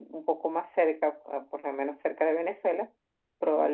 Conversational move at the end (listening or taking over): listening